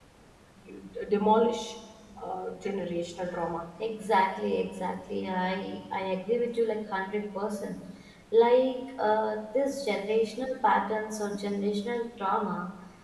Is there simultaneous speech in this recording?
No

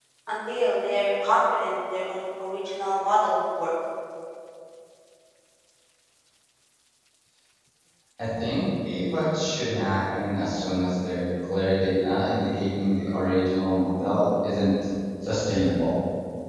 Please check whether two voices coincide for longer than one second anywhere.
No

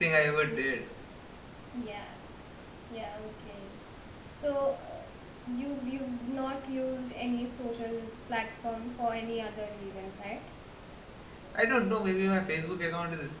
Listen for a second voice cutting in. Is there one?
No

